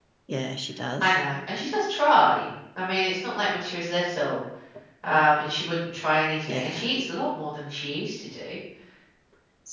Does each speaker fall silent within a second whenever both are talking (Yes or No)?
Yes